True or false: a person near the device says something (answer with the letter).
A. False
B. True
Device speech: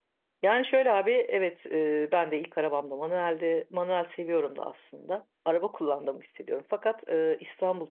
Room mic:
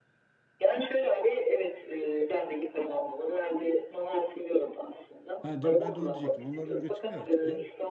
B